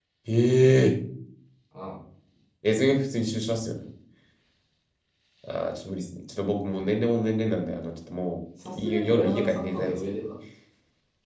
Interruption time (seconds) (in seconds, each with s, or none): 8.6 s